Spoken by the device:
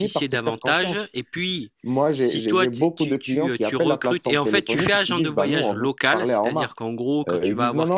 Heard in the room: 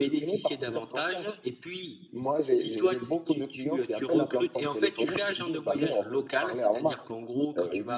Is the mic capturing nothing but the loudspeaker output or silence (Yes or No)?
Yes